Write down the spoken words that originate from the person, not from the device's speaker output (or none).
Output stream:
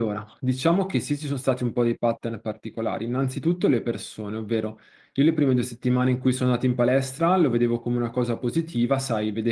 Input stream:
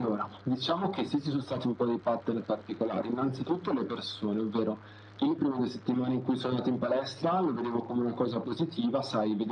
none